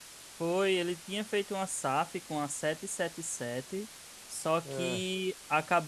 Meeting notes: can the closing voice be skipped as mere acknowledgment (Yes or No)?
Yes